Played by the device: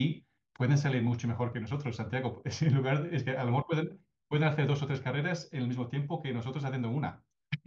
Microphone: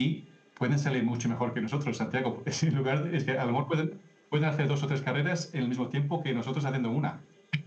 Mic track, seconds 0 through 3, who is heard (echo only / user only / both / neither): echo only